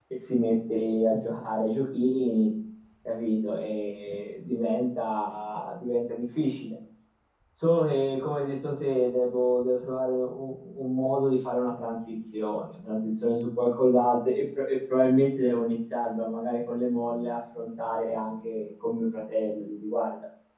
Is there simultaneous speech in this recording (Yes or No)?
No